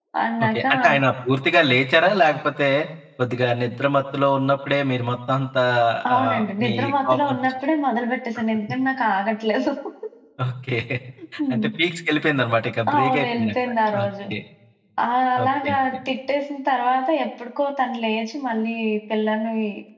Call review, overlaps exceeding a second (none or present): present